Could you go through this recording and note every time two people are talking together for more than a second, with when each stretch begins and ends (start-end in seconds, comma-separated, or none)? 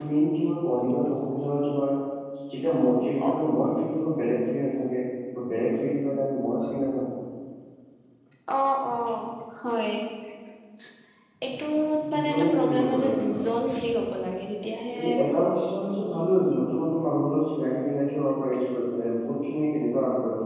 12.1-13.4